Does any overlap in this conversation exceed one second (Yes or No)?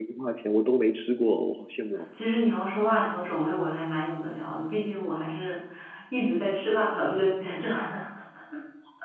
No